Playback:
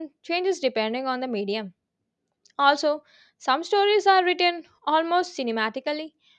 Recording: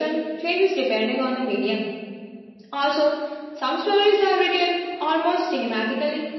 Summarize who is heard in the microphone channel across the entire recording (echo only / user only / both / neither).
echo only